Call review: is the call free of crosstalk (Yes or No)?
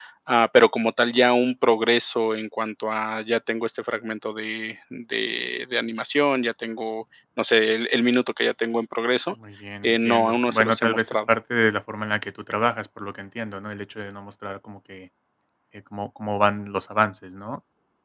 No